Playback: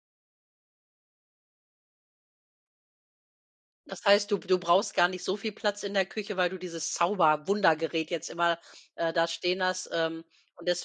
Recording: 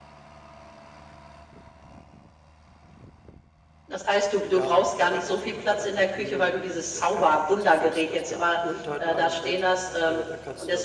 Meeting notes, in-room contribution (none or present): present